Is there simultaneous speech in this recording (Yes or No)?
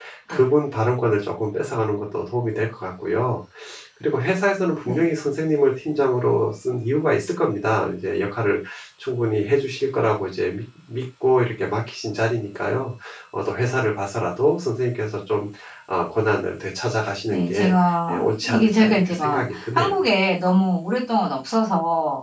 Yes